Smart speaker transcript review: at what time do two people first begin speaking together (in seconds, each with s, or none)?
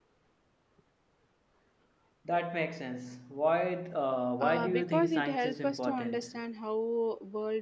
4.4 s